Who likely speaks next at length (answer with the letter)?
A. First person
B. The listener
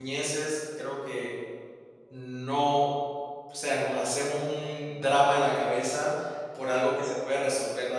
A